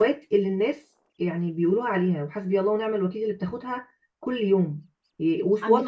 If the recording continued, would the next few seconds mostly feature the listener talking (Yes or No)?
No